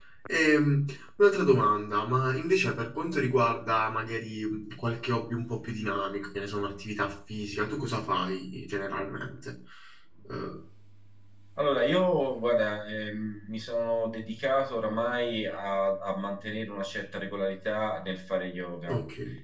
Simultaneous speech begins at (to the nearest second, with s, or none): none